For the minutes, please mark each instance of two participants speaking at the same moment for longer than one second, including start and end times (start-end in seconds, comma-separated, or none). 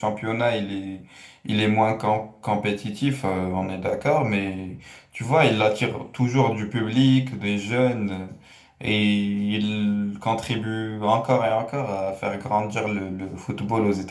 none